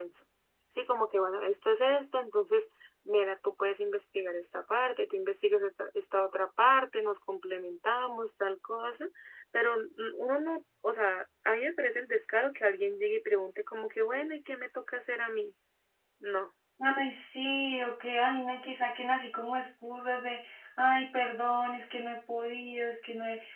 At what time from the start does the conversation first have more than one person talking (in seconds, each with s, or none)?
none